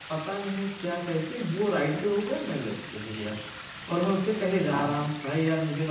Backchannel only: Yes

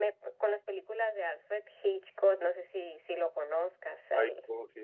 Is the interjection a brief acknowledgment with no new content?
No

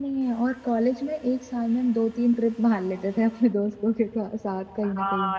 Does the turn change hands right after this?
Yes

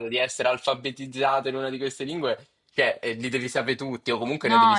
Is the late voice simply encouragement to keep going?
No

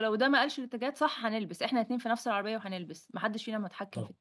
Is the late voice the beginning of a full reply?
Yes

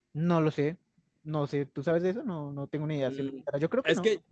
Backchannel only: No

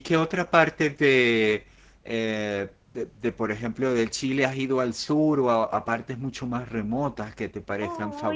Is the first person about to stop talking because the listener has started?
Yes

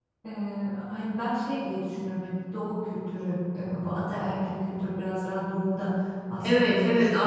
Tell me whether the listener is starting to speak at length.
Yes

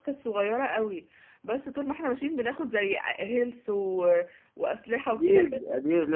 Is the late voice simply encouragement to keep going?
No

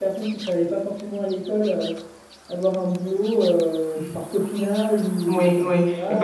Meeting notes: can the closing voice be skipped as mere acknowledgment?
No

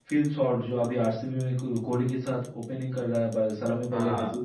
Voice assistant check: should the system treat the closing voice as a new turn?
No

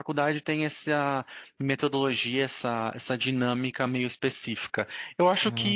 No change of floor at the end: Yes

